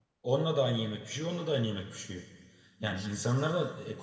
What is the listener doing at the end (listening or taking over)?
listening